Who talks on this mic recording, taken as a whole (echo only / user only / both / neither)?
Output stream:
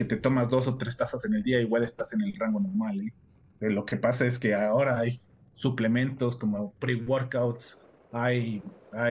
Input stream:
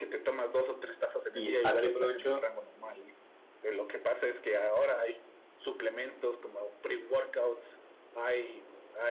both